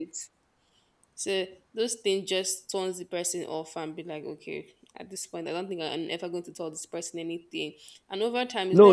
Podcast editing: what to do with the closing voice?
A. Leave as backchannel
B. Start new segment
B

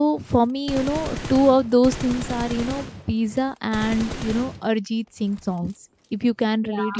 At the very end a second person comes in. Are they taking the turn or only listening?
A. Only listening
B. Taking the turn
A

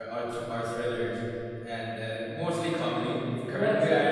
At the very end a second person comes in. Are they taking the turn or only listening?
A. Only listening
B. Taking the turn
A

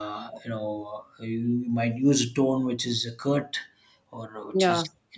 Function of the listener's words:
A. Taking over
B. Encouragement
B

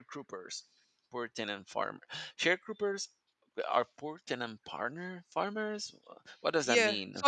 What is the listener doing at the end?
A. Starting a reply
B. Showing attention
A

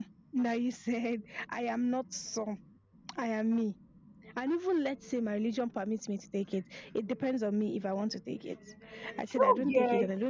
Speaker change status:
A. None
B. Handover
A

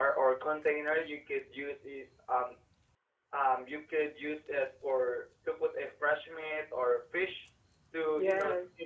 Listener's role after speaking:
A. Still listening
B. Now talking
A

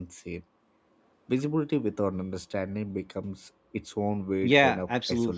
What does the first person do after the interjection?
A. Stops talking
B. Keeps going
A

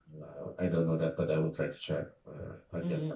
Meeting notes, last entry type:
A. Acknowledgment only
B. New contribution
B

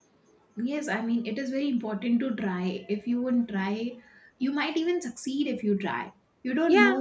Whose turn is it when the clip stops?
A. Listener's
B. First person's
B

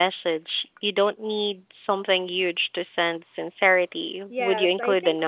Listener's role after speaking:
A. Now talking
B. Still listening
A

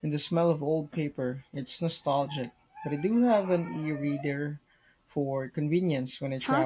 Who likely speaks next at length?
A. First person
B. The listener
B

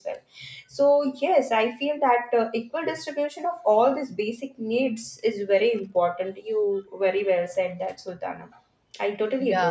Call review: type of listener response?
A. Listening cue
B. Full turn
B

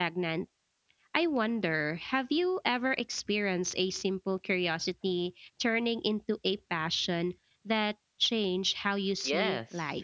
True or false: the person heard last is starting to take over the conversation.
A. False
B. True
B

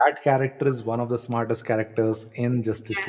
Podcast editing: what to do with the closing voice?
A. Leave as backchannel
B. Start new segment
B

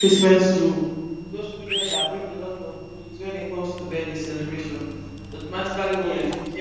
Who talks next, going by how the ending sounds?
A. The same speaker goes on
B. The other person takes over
A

